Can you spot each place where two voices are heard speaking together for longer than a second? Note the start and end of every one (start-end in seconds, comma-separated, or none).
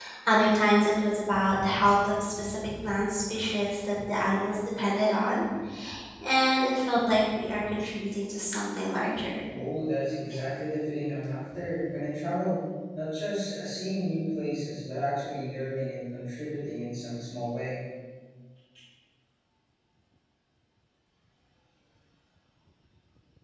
none